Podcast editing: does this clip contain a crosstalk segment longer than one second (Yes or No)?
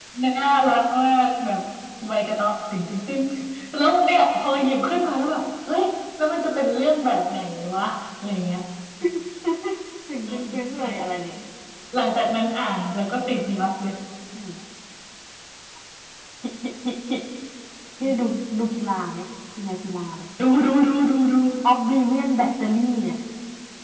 No